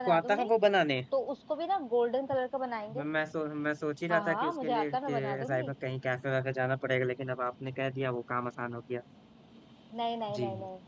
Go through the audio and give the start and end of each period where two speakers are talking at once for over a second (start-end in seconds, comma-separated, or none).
4.1-5.7